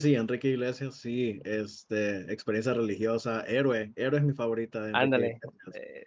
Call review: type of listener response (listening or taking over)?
taking over